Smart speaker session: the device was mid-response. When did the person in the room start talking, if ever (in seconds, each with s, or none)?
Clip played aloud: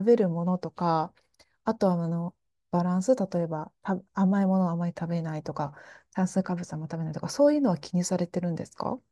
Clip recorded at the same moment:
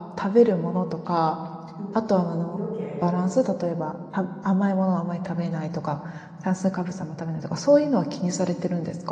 1.8 s